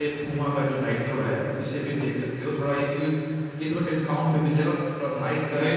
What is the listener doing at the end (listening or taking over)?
taking over